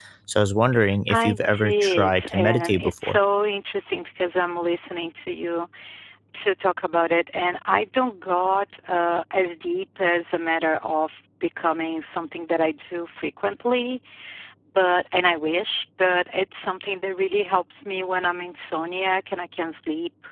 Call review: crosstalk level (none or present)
present